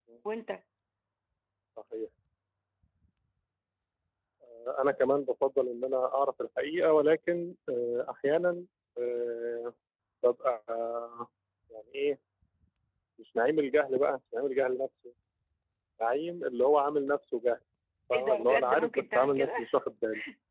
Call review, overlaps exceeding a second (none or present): present